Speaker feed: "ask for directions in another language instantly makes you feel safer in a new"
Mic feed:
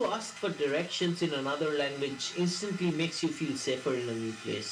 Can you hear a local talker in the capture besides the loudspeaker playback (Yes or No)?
No